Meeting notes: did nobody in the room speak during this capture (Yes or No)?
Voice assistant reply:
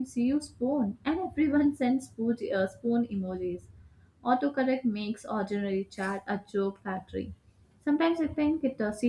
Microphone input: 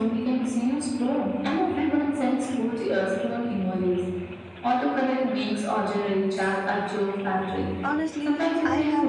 No